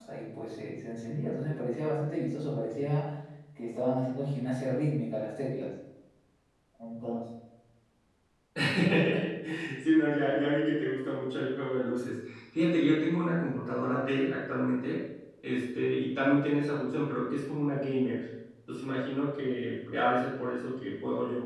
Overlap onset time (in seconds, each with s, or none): none